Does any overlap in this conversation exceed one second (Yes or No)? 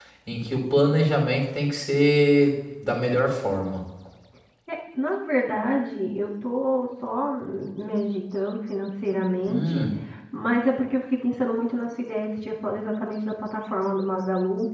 No